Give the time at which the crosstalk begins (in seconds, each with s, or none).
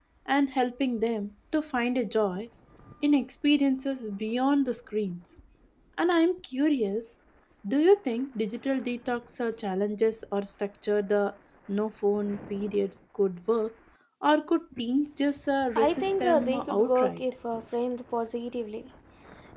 15.8 s